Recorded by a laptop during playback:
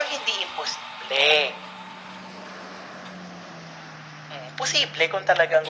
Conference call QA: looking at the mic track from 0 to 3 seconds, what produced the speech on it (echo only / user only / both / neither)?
echo only